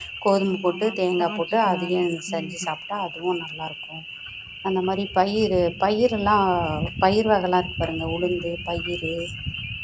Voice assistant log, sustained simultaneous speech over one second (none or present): present